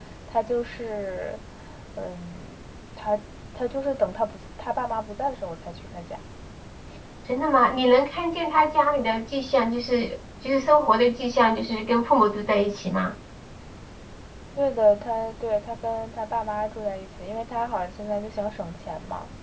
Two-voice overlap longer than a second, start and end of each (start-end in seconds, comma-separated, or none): none